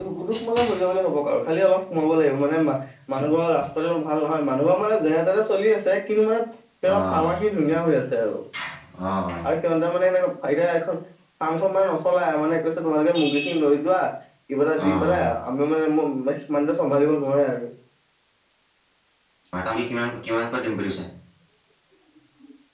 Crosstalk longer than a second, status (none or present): none